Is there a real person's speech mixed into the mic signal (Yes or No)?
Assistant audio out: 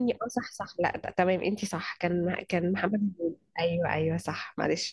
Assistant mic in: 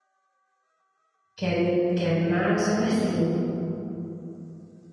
Yes